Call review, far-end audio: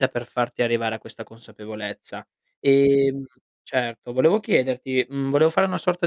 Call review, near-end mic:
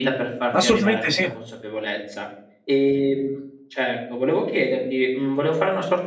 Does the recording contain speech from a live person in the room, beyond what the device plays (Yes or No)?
Yes